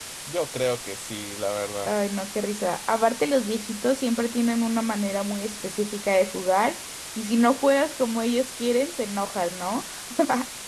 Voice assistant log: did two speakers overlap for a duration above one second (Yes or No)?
No